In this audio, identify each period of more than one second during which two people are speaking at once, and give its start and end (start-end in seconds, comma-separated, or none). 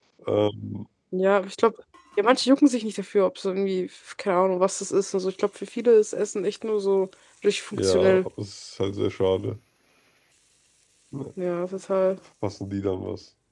none